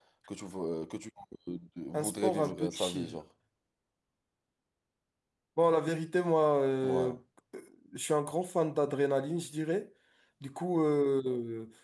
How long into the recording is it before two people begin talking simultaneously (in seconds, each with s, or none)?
1.9 s